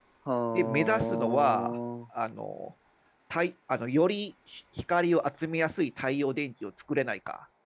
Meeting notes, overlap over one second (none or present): present